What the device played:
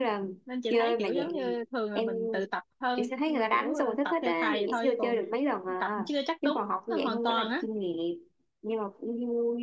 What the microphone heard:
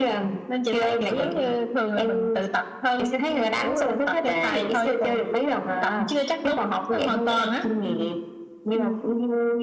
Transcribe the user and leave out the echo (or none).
Ừ. Ừ.